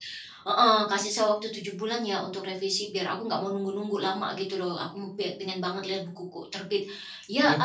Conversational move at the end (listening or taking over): listening